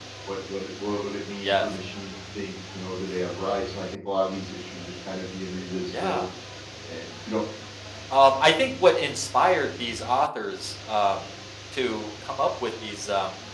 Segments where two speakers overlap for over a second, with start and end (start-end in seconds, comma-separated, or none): none